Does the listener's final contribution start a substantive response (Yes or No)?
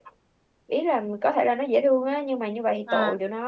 No